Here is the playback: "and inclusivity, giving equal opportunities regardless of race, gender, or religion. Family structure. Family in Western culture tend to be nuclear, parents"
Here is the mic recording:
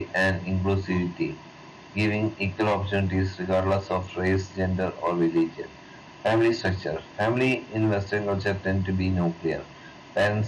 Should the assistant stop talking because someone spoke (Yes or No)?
No